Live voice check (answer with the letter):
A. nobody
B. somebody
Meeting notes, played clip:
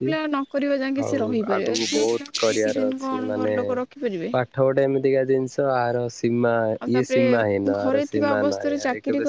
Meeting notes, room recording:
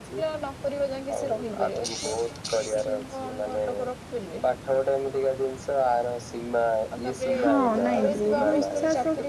B